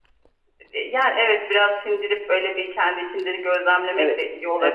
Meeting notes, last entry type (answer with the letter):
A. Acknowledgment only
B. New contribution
B